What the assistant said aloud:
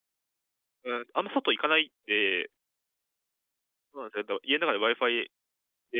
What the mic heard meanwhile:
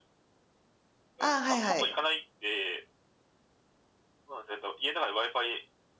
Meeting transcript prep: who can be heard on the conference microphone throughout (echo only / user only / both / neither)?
both